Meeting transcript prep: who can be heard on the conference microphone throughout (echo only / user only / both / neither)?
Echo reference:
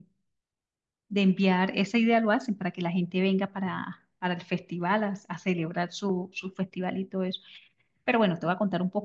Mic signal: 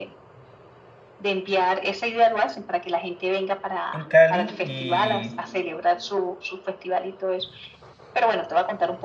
both